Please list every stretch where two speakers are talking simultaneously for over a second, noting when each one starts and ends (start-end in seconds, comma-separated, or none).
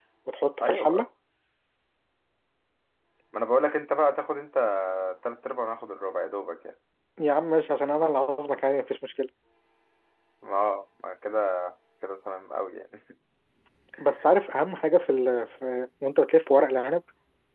none